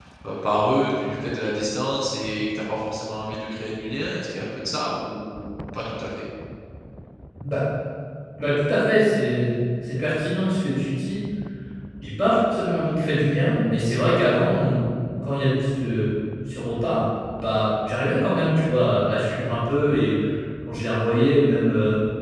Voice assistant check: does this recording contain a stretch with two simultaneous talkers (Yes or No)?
No